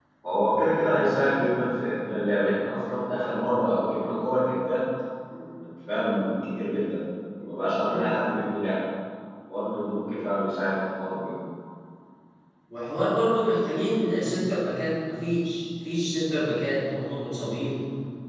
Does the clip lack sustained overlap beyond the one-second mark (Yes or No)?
Yes